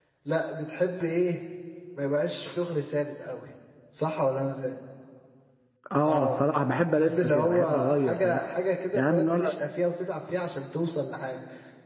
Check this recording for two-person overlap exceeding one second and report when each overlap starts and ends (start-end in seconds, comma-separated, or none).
7.0-8.4